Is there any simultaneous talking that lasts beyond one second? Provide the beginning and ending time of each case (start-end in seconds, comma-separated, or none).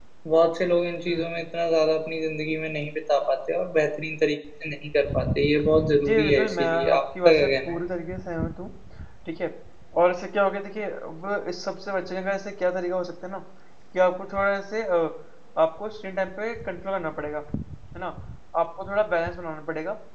6.0-7.8